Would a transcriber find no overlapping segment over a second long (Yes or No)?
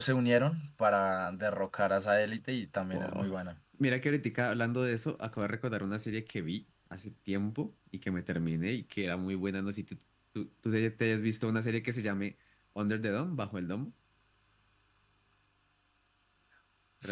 Yes